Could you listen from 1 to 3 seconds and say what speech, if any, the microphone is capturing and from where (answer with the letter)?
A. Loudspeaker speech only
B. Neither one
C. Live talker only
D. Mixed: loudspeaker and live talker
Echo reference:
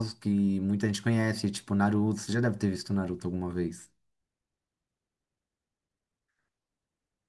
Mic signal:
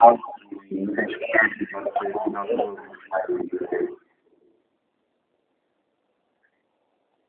D